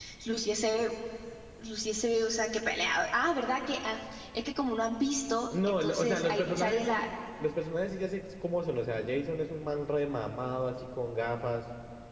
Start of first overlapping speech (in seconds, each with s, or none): 5.5 s